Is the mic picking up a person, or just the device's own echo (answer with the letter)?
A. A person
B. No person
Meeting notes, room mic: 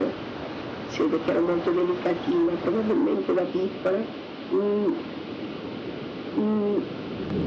B